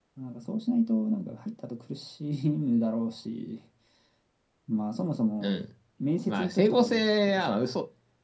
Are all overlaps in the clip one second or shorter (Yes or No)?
No